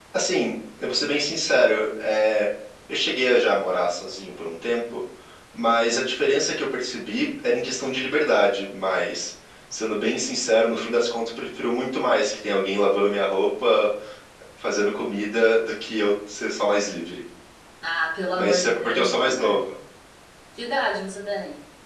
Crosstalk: present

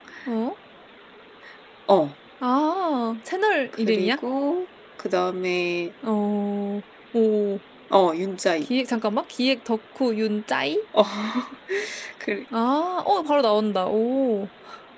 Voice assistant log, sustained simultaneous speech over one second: none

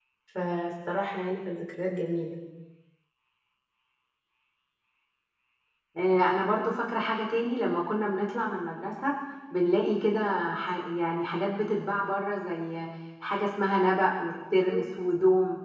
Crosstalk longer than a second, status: none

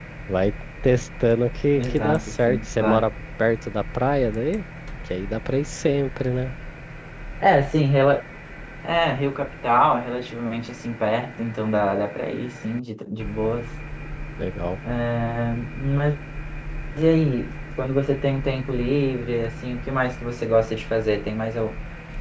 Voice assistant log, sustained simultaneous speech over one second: present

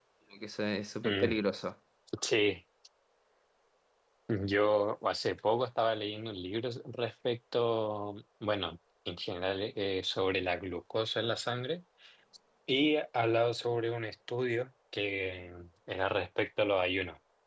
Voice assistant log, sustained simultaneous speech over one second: none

